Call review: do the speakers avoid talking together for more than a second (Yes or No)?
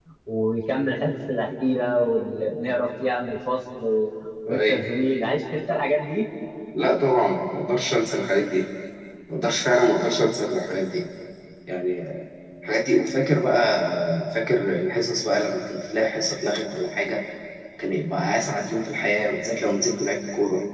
Yes